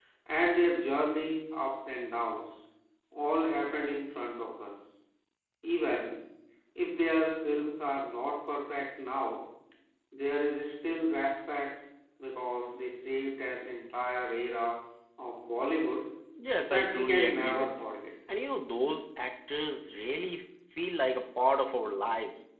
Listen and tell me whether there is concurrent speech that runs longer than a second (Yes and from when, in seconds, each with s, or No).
Yes, from 16.6 s